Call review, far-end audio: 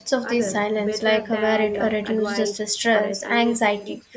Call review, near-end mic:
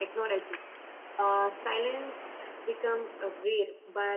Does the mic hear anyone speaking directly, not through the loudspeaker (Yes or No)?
Yes